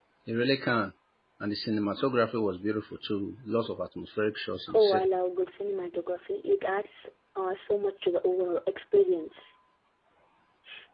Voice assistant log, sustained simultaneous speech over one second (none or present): none